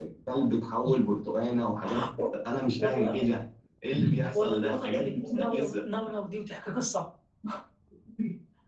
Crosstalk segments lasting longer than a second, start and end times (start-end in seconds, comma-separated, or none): 4.3-5.8